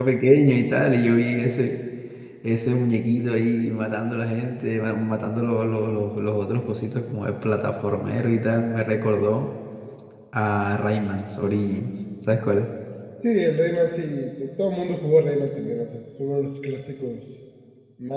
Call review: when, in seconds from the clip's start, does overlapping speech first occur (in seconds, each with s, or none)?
none